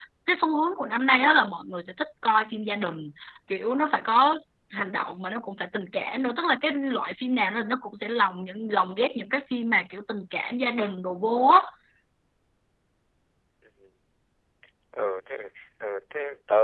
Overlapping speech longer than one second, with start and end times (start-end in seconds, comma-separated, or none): none